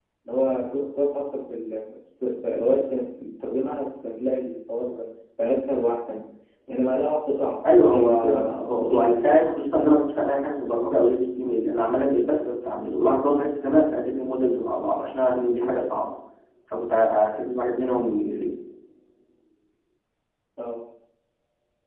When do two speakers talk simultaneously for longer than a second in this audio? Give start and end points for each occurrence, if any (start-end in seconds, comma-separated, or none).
7.9-9.2